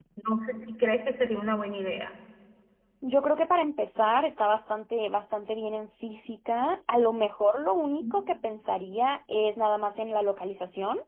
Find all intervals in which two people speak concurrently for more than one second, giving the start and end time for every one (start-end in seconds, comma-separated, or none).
none